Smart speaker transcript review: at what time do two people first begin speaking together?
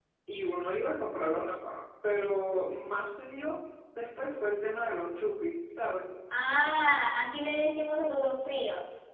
none

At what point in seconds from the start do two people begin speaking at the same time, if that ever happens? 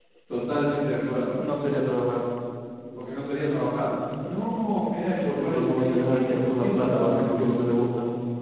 5.2 s

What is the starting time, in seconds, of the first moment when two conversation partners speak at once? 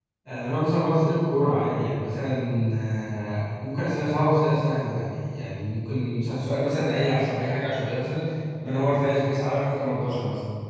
none

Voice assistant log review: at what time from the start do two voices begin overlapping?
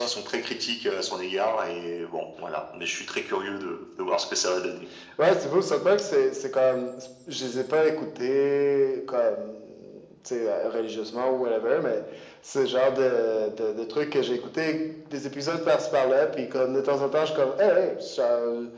none

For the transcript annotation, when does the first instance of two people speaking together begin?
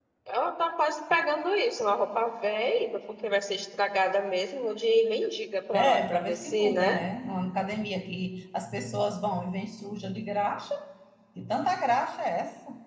5.7 s

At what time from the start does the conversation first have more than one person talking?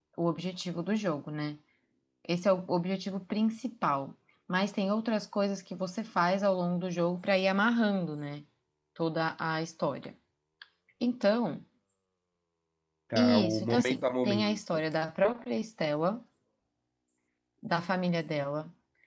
13.2 s

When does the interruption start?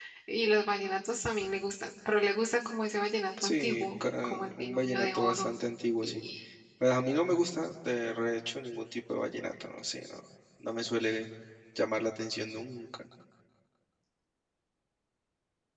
3.4 s

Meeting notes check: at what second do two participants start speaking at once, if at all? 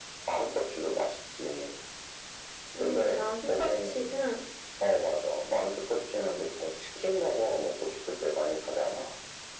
2.8 s

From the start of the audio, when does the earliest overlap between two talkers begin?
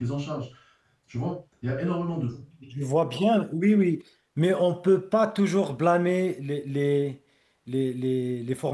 none

